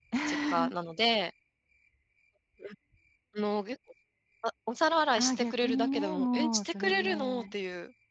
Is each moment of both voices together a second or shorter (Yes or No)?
No